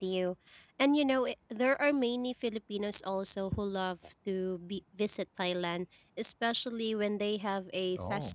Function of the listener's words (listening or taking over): listening